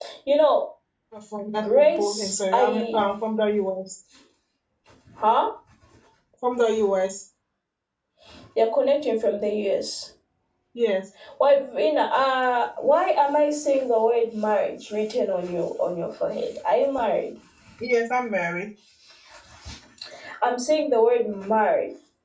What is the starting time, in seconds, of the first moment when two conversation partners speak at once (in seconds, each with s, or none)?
1.6 s